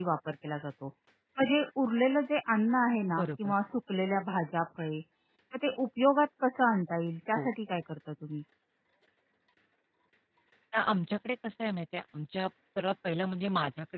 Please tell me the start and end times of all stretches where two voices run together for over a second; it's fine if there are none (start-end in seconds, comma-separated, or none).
none